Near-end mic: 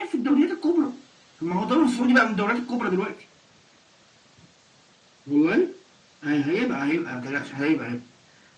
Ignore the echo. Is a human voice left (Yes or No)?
No